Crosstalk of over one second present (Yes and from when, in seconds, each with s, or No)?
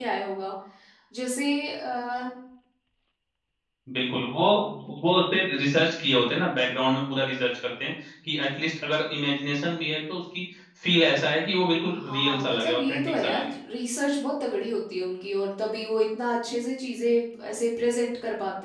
Yes, from 12.0 s